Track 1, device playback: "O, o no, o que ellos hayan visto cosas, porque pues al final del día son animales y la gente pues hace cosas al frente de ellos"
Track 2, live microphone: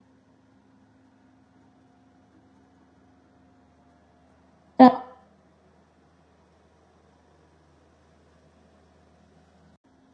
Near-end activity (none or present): present